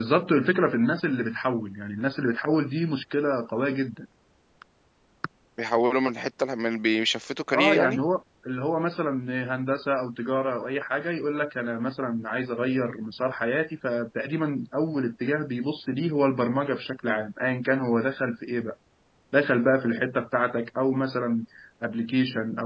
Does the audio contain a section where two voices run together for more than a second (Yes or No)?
No